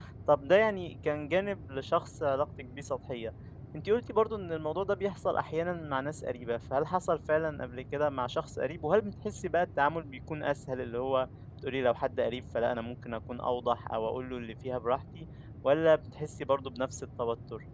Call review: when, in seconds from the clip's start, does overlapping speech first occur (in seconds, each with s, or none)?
none